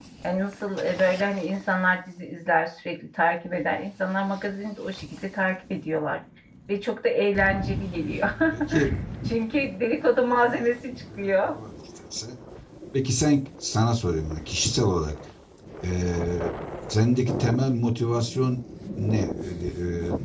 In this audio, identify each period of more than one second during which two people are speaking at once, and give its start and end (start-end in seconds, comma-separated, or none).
none